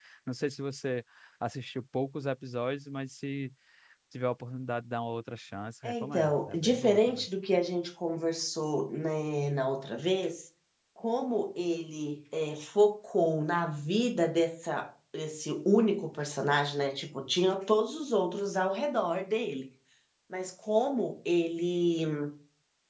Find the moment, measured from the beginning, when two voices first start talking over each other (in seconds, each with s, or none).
5.8 s